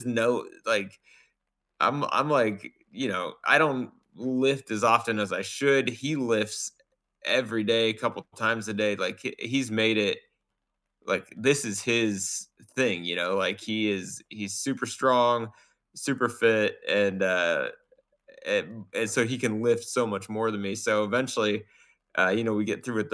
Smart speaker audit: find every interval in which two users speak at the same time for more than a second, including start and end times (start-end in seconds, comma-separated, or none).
none